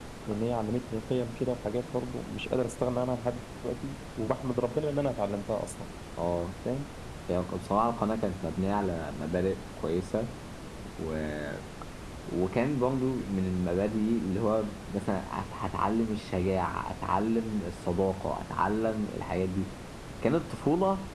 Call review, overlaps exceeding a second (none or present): none